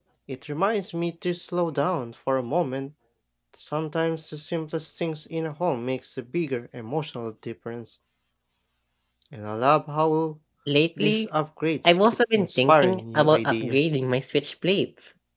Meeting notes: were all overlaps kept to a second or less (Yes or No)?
No